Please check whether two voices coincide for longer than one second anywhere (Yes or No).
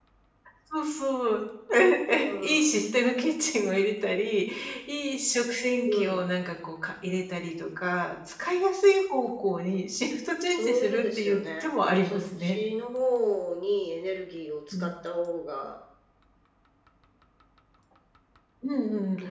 Yes